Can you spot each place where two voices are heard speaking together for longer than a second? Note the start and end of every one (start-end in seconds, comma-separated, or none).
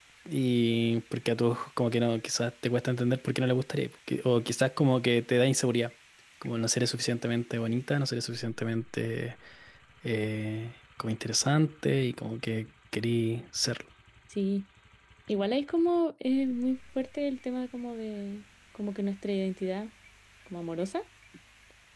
none